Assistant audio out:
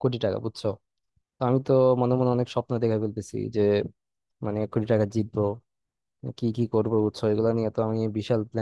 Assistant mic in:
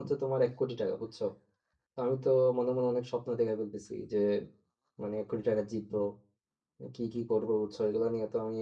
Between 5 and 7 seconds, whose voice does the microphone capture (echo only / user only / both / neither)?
echo only